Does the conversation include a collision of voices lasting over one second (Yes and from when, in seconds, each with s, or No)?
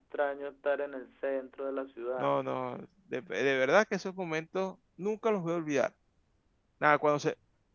No